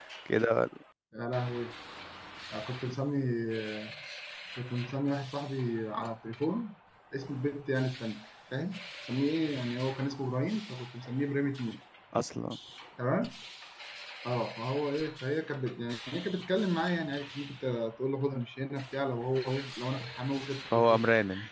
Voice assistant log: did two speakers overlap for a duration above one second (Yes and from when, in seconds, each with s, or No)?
No